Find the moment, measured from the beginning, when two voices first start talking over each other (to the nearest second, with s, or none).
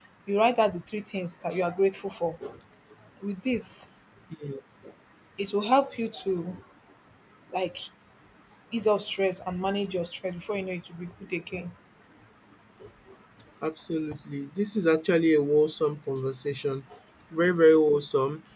none